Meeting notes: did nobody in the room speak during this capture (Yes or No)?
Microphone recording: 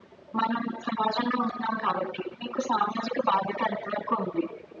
Yes